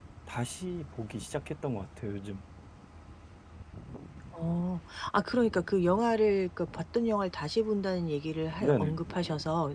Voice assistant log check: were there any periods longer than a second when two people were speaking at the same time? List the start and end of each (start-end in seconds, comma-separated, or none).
none